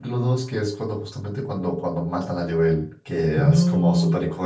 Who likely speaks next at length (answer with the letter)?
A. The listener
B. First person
B